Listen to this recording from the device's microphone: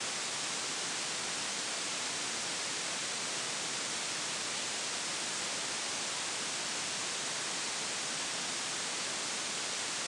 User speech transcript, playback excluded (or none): none